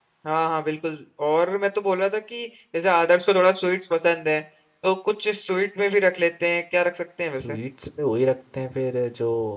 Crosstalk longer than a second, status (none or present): none